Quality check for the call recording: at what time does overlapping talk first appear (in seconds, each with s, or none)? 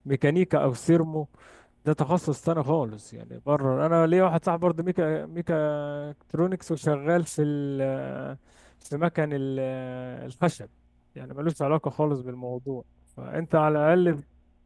none